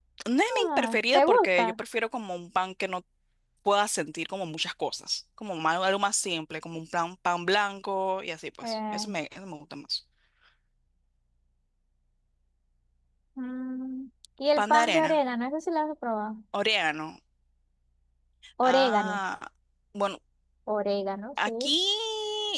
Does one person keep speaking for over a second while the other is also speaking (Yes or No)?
Yes